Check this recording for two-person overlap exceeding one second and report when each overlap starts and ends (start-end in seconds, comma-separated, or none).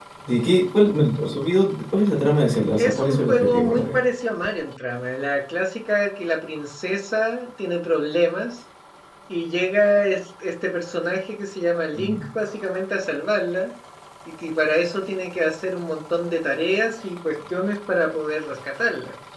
2.8-4.0